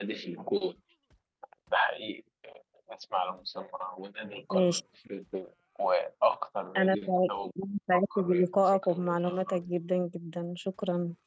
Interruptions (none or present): present